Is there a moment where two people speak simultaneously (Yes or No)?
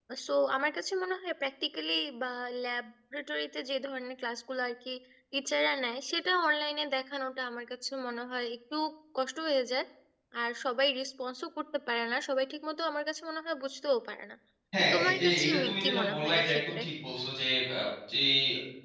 Yes